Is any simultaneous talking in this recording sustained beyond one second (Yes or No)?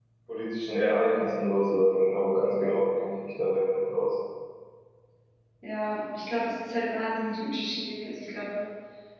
No